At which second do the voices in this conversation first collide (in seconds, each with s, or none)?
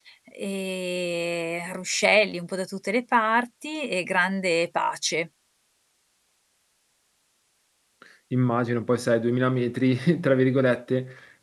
none